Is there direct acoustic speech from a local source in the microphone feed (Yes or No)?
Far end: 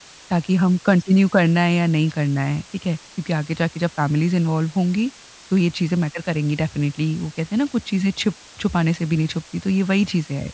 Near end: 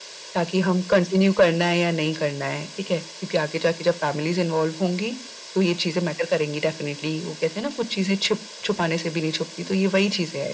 No